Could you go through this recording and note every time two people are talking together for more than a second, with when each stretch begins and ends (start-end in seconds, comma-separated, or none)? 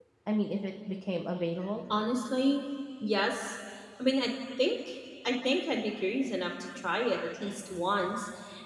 none